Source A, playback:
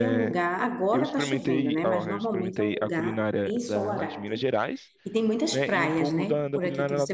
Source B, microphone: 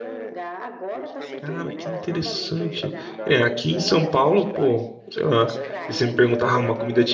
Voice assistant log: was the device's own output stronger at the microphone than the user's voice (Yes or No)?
No